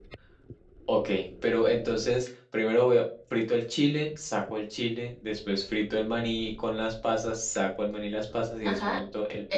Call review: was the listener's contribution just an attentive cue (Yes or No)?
No